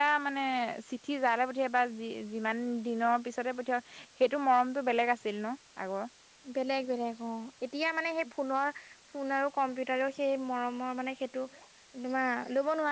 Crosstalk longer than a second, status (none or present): none